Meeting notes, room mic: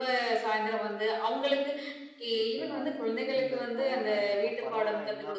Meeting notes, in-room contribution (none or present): present